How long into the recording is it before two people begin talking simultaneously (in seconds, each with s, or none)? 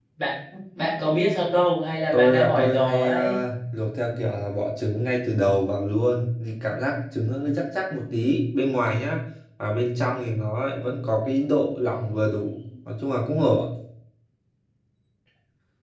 2.1 s